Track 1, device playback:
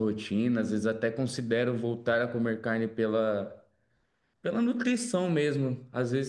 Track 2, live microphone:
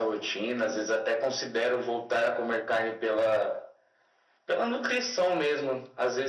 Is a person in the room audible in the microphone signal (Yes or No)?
No